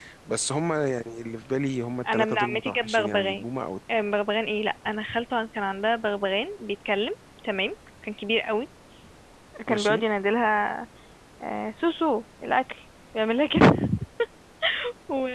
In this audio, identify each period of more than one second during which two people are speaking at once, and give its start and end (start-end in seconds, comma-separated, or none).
2.1-3.4